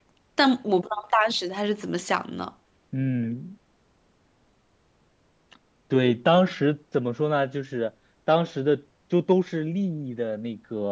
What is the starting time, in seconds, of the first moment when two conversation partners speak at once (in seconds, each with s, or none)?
none